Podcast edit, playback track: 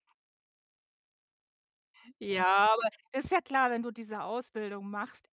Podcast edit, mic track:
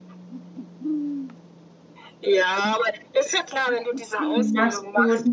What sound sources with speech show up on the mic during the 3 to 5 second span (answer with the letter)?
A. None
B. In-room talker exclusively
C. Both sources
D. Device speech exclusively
C